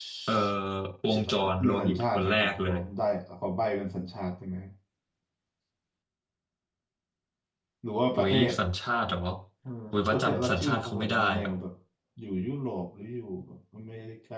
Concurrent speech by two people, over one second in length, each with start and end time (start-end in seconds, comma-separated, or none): 1.1-2.8, 10.1-11.5